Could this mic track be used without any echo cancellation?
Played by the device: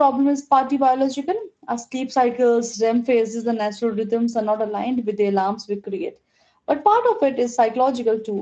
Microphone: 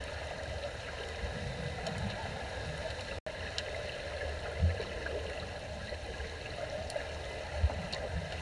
Yes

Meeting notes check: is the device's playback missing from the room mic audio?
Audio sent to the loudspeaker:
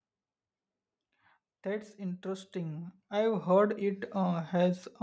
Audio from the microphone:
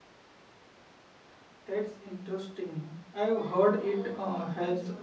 No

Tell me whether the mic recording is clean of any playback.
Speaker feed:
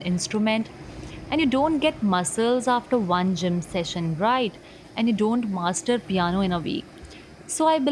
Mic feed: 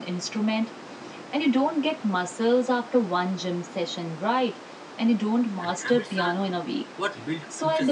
No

